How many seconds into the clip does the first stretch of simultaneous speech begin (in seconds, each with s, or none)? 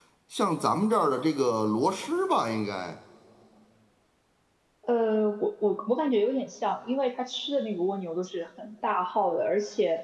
none